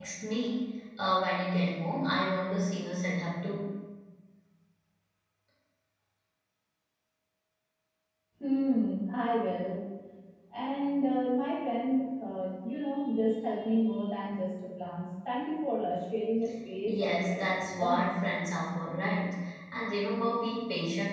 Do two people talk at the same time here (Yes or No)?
Yes